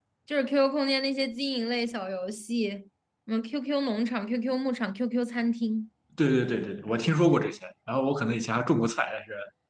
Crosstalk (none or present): none